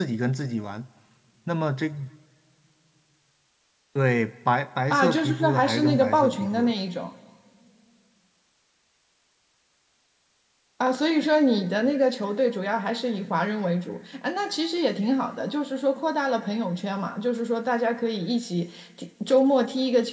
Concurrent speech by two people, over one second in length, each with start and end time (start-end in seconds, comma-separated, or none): 4.9-6.7